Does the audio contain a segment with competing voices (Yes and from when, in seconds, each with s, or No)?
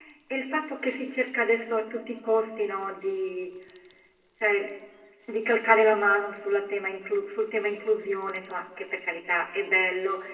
No